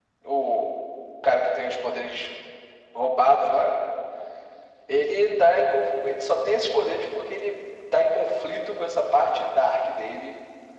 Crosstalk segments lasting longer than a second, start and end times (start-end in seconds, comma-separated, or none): none